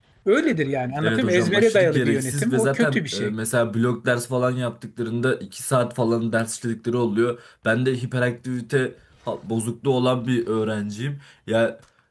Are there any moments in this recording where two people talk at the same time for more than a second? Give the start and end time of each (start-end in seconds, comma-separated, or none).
1.0-3.3